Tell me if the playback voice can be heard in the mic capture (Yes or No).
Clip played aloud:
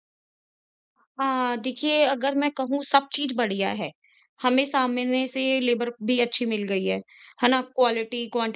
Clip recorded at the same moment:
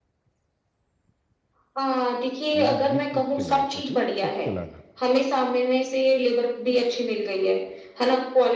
Yes